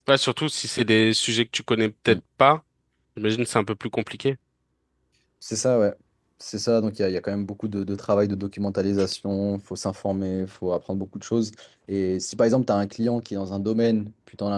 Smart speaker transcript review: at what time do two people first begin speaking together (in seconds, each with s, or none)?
none